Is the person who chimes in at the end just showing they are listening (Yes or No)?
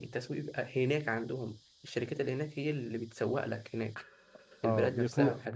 No